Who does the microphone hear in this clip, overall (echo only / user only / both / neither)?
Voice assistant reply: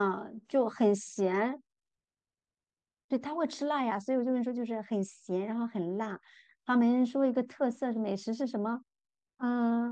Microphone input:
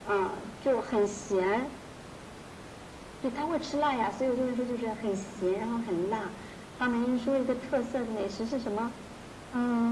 echo only